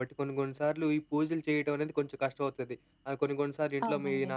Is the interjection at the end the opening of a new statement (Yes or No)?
No